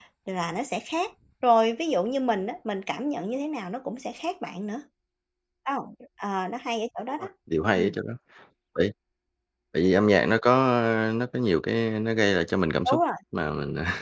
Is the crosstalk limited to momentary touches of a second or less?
Yes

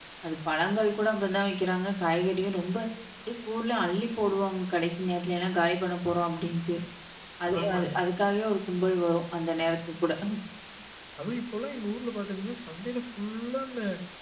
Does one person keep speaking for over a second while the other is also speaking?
No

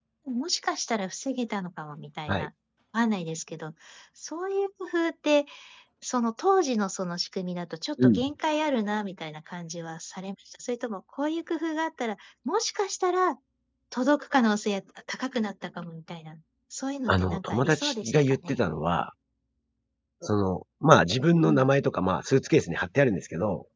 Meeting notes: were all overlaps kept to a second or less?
No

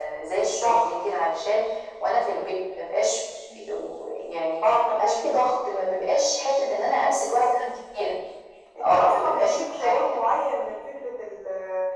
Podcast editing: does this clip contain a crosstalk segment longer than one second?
Yes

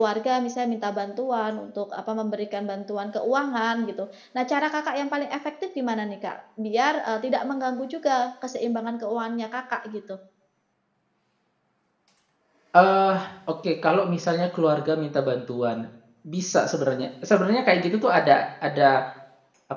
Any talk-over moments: No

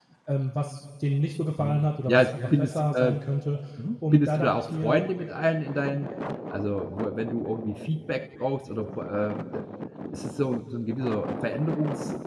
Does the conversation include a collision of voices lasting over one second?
Yes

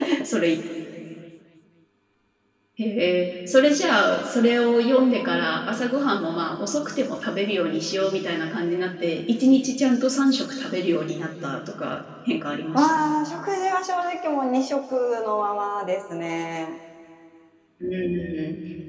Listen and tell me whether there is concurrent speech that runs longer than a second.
No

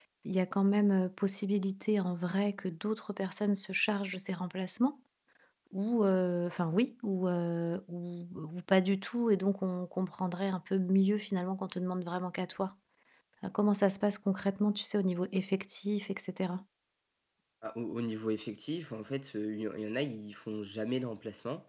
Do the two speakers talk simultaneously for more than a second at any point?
No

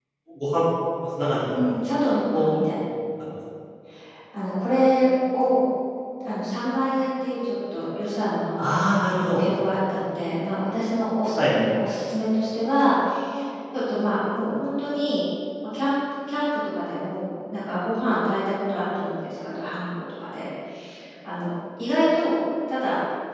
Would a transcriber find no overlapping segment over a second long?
Yes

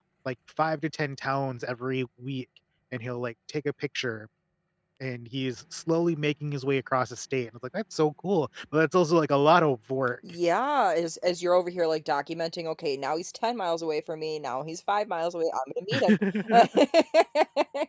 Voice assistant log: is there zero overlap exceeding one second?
Yes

